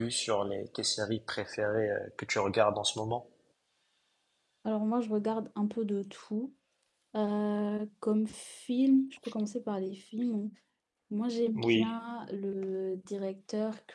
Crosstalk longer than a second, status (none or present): none